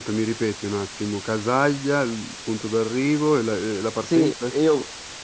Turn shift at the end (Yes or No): Yes